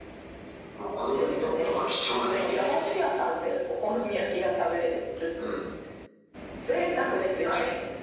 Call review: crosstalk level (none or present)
present